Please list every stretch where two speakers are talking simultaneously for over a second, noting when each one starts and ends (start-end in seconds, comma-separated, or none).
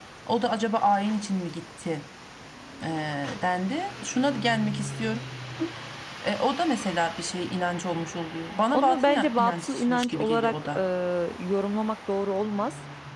8.7-10.8